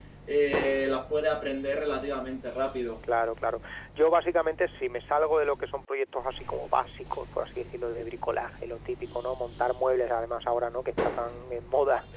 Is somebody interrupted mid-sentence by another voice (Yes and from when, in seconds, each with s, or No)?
No